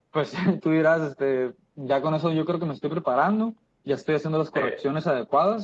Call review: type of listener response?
listening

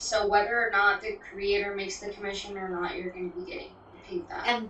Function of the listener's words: taking over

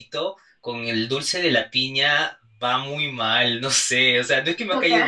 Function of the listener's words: listening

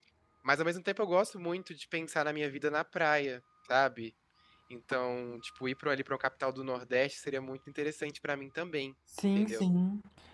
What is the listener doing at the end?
taking over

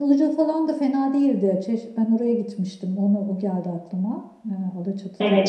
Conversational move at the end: taking over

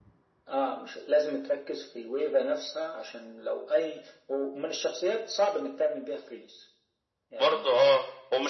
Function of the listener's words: taking over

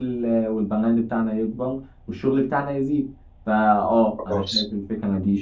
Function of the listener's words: listening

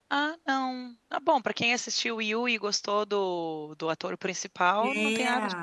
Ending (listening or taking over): taking over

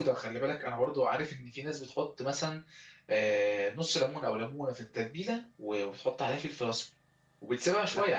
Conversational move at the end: listening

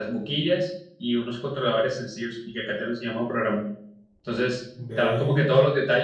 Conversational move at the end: listening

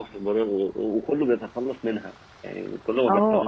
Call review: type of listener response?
taking over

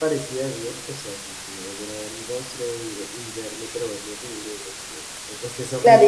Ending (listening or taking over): taking over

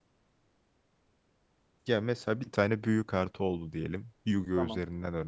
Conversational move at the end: listening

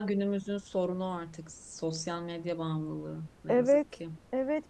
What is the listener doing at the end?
taking over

